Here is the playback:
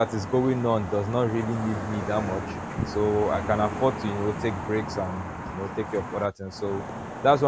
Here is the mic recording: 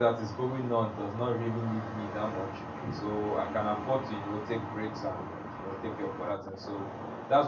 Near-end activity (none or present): none